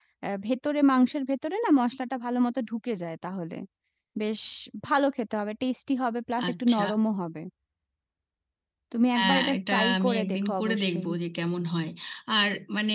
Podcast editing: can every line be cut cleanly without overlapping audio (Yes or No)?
No